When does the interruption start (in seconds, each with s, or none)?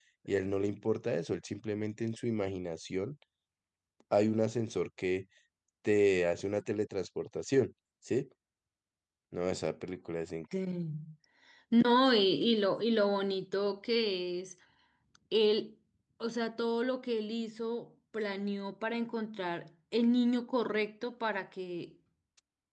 none